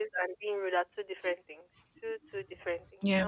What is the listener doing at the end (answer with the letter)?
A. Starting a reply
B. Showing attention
B